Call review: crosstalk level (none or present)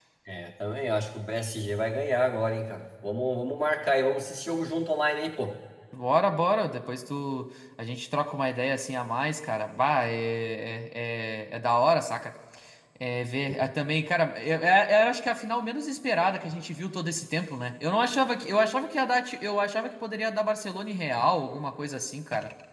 none